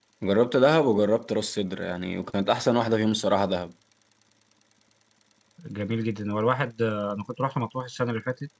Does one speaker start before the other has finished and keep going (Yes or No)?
No